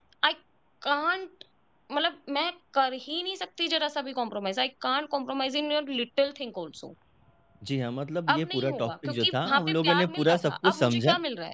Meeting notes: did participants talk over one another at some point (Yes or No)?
Yes